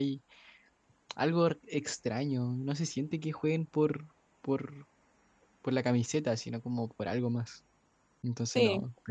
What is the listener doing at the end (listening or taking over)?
taking over